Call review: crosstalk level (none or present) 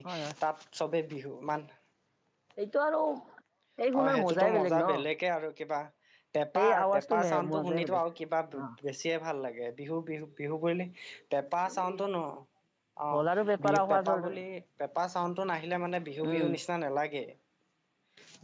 present